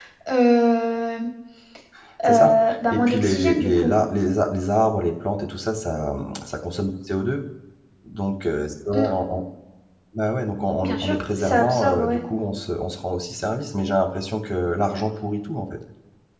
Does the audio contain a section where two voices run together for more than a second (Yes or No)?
Yes